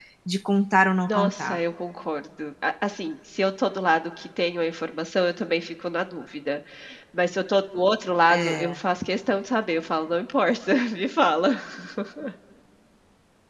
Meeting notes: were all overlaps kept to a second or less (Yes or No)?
Yes